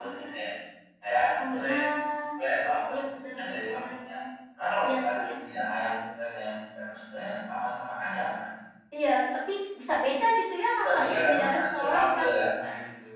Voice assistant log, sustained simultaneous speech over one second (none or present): present